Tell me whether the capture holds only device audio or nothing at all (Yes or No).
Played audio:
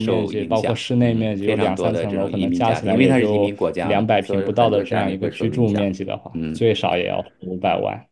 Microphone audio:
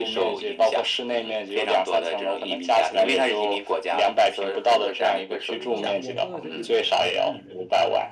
No